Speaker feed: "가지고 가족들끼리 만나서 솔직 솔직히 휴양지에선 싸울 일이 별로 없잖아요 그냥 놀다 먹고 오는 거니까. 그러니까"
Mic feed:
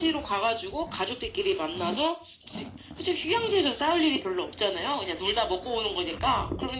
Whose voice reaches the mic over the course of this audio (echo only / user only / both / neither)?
echo only